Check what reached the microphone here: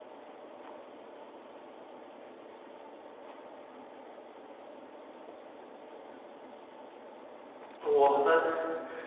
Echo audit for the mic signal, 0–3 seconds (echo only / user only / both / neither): neither